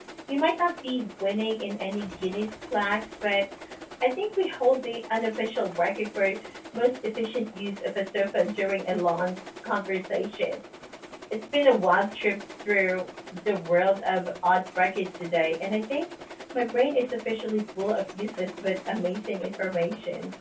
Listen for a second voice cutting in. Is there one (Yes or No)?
No